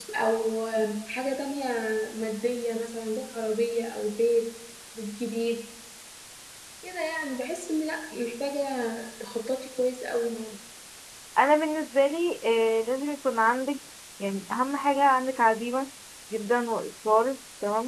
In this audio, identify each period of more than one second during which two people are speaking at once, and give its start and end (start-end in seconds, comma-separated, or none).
none